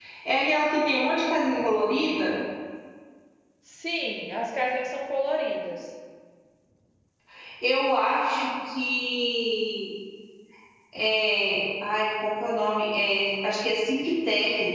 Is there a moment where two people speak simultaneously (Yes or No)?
No